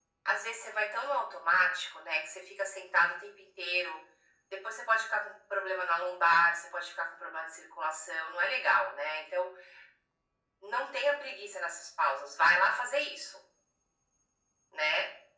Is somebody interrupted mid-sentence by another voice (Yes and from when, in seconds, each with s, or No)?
No